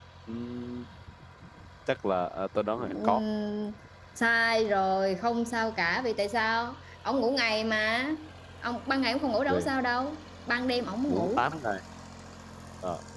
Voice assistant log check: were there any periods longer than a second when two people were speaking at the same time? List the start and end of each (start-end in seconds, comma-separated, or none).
none